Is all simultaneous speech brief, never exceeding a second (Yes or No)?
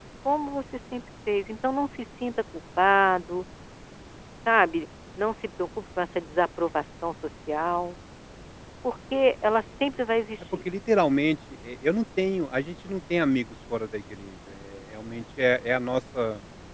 Yes